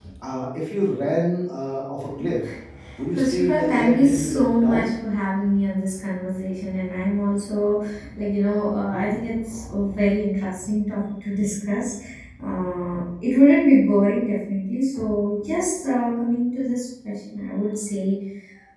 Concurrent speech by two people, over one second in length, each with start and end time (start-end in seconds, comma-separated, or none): 3.1-4.9